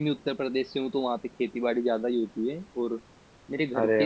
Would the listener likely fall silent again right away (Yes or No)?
Yes